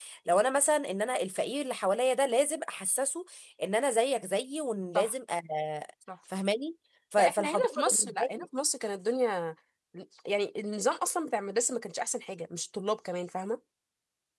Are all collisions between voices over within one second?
No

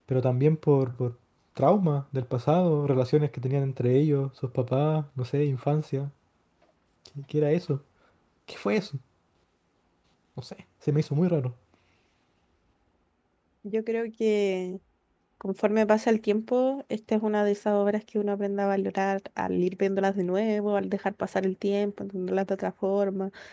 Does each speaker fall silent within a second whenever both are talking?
Yes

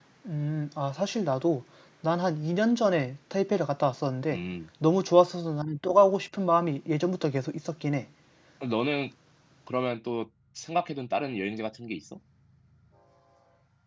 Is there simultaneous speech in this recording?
No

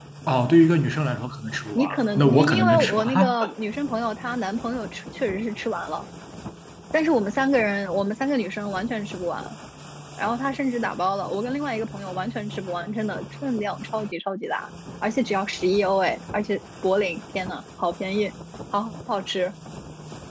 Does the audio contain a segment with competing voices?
Yes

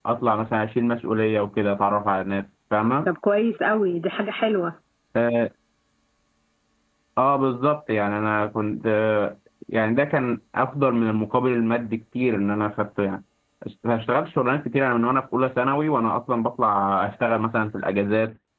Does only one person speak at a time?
Yes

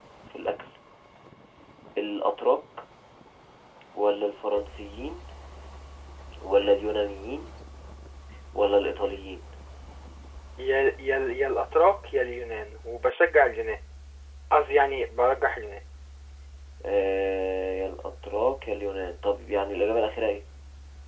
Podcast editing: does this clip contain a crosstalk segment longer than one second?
No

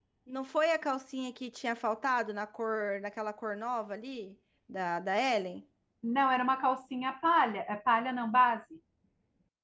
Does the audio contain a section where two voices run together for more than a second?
No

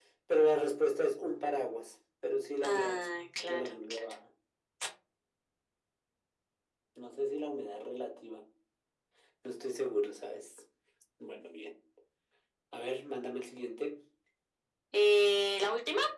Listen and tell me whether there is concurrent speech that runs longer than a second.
Yes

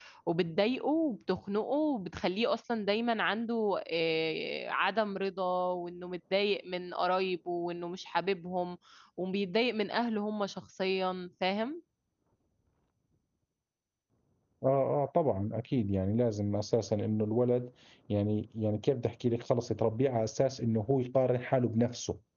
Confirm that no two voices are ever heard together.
Yes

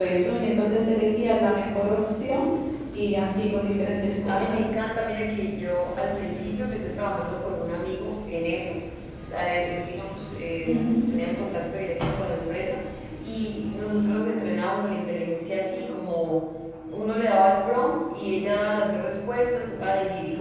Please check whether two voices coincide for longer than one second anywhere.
No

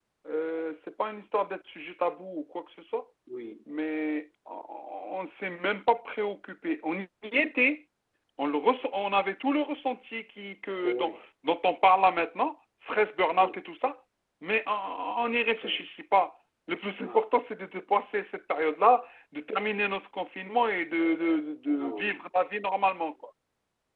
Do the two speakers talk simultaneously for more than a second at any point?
No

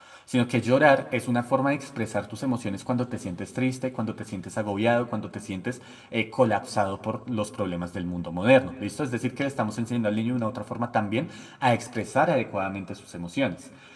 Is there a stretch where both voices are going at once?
No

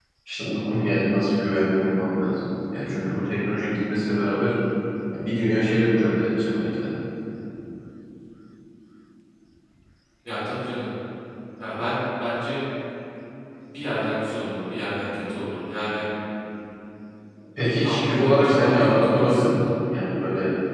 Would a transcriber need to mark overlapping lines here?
Yes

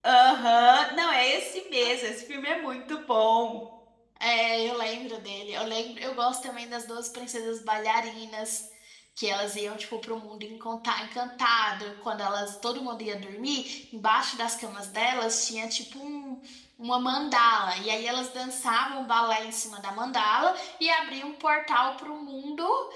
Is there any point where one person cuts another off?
No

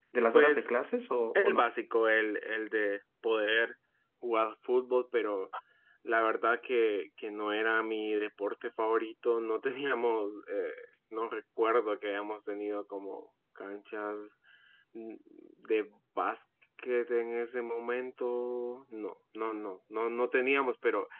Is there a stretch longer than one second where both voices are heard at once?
No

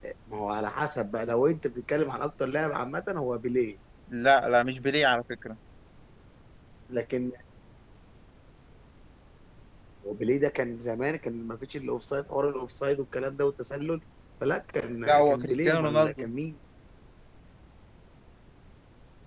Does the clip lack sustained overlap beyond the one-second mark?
No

